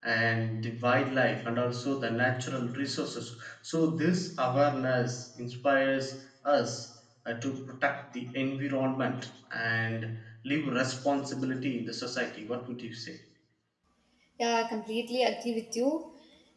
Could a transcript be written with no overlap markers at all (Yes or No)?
Yes